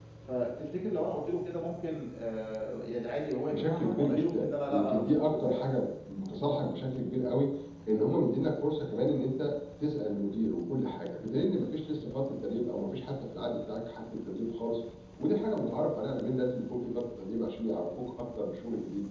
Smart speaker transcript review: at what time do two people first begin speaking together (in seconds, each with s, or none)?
3.5 s